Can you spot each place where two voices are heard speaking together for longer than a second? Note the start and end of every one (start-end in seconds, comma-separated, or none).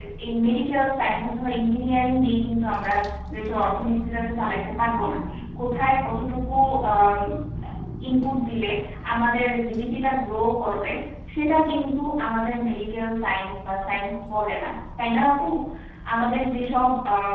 none